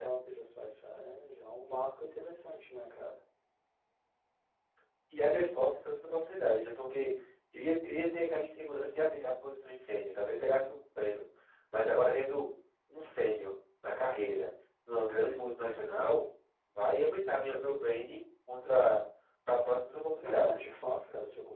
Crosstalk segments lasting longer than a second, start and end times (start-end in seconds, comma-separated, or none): none